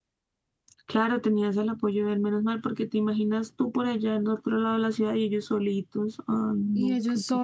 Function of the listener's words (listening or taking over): taking over